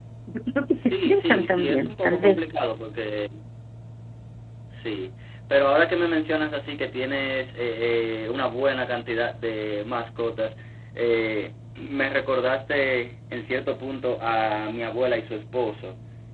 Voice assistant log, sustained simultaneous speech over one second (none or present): present